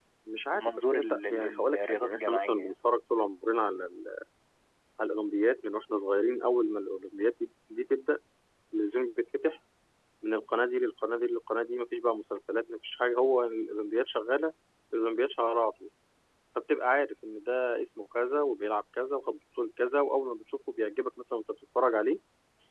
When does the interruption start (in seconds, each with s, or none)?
0.5 s